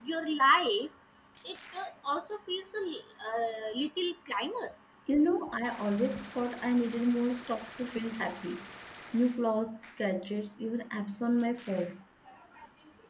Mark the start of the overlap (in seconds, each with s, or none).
none